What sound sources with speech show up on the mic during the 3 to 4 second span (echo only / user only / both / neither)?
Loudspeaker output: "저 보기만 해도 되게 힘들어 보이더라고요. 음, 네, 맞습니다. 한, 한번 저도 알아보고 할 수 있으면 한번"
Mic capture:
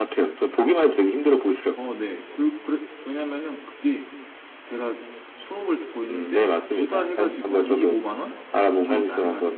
user only